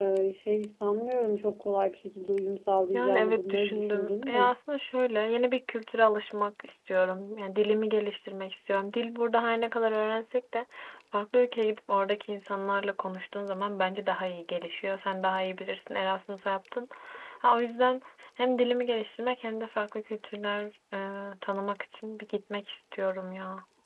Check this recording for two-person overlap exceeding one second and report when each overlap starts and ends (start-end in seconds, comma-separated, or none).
2.9-4.5